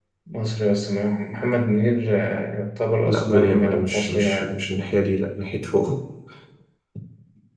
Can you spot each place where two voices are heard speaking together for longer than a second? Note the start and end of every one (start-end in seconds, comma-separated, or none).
3.0-4.7